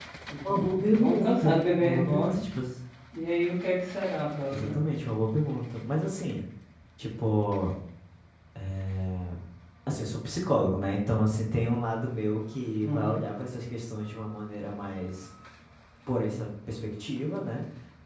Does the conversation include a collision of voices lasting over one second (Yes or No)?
Yes